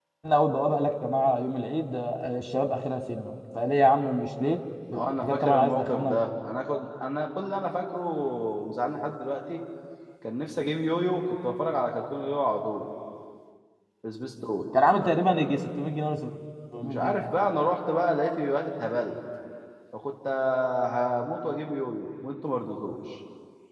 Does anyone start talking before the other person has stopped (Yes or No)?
Yes